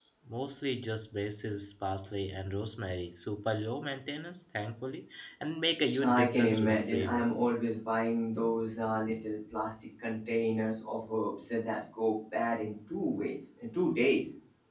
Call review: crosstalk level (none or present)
present